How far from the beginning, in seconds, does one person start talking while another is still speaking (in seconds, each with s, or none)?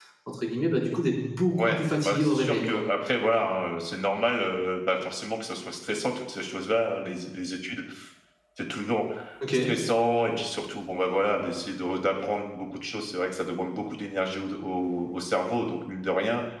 1.6 s